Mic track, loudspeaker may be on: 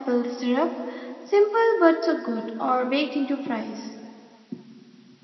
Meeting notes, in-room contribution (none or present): none